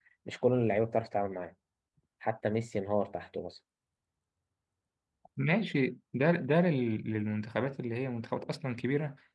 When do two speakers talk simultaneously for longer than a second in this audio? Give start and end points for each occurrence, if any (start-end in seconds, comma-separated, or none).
none